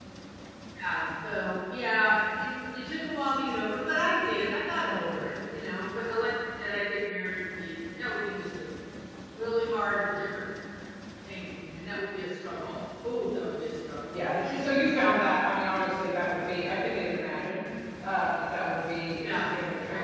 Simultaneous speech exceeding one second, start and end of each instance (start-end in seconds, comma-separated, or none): none